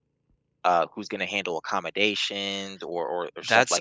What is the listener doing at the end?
taking over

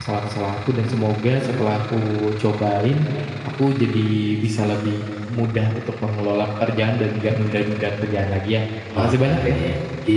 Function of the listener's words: taking over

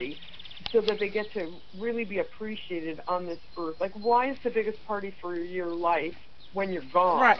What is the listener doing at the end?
taking over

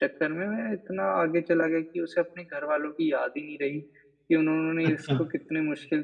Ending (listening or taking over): listening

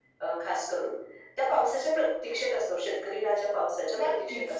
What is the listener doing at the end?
listening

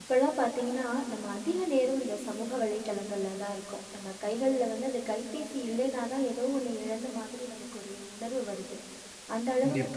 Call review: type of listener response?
listening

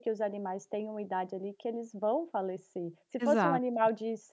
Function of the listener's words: listening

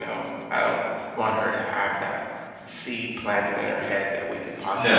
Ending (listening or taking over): taking over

